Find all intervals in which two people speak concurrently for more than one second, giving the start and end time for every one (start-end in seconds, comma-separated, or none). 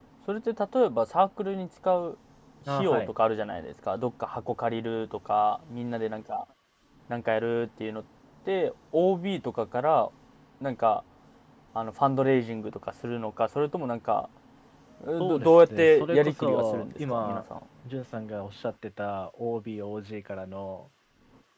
15.2-17.4